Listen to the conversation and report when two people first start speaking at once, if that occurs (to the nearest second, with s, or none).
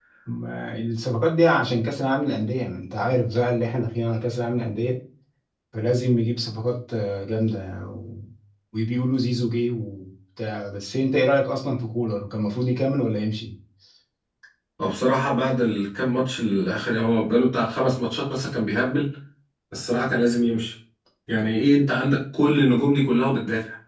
none